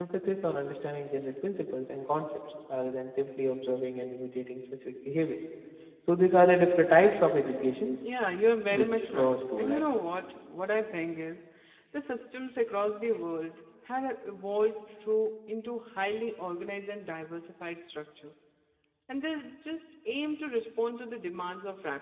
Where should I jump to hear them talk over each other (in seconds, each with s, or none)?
8.7 s